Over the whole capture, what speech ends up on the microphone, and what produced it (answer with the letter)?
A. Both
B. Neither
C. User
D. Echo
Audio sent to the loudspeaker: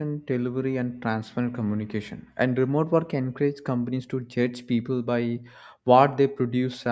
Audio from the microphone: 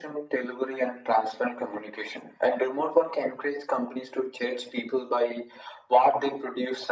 D